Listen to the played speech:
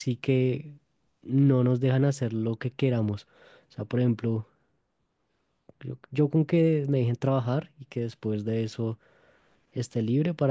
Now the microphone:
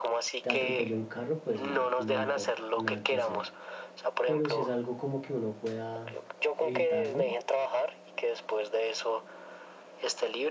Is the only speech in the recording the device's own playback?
No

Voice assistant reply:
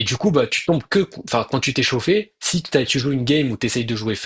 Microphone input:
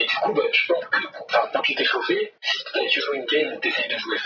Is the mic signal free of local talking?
Yes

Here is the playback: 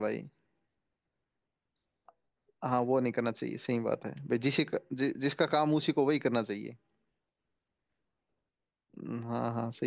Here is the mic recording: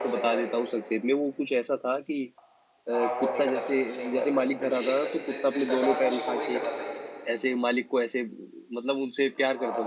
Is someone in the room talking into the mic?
Yes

